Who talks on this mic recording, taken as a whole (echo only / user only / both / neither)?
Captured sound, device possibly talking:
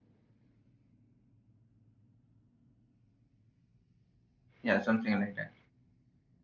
user only